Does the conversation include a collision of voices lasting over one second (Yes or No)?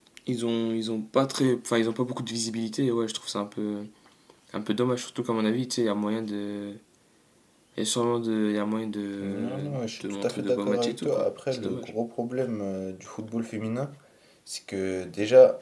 Yes